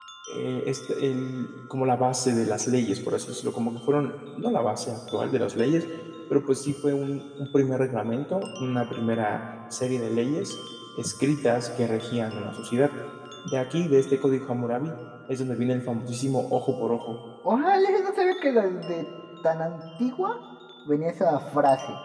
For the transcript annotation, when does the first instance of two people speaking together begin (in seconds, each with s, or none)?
none